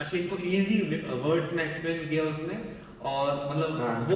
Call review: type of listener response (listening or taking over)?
listening